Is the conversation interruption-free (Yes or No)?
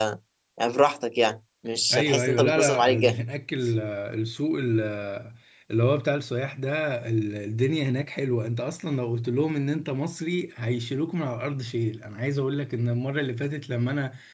No